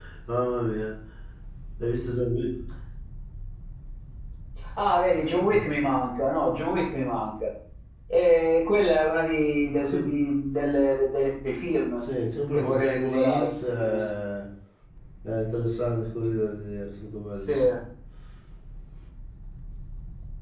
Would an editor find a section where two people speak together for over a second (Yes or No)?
Yes